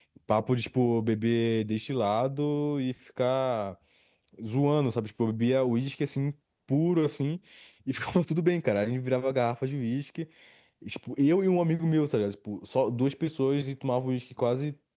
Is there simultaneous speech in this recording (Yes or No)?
No